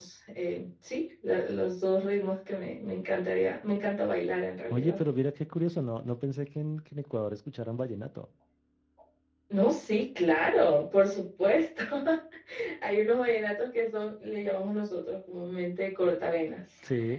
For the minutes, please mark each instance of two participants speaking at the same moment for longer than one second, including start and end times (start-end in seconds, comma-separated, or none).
none